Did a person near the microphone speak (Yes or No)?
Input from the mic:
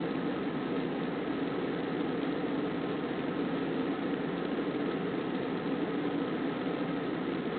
No